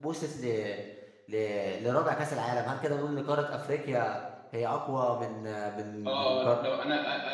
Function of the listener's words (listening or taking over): taking over